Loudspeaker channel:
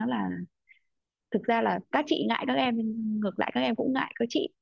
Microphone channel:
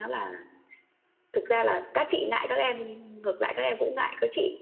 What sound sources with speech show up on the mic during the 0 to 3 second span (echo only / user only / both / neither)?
echo only